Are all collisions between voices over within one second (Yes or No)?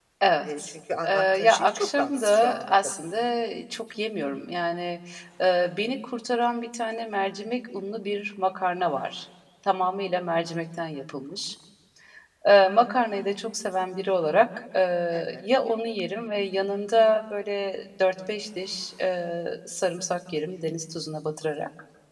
No